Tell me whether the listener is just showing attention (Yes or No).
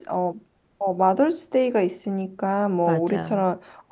Yes